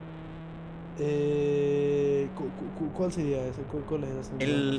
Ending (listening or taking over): taking over